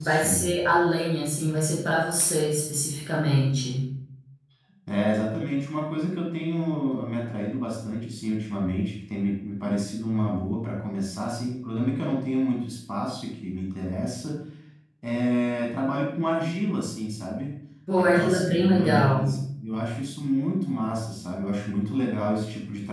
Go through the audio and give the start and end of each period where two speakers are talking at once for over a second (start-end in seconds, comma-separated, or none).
18.0-19.3